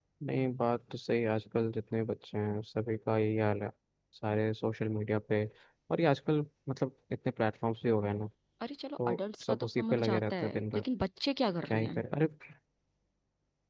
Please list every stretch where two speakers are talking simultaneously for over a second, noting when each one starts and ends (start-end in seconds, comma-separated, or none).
9.1-10.8